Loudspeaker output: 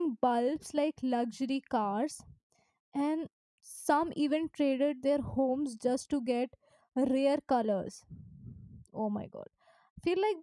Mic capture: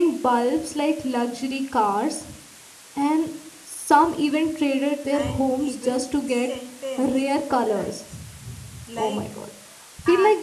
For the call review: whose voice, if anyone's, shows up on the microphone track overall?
both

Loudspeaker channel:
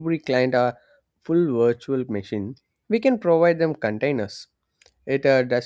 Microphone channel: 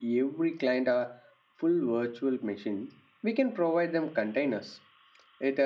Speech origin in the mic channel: echo only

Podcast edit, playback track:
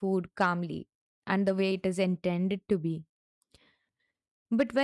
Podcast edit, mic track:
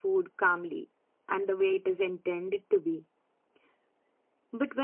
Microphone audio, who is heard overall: echo only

